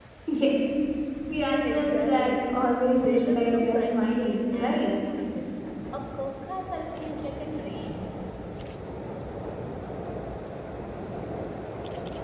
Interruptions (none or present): present